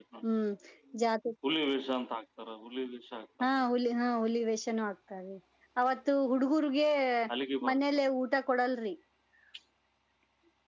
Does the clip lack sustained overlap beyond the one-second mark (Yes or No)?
Yes